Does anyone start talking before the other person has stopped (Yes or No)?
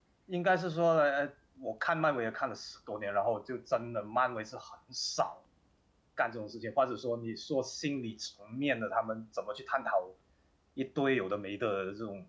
No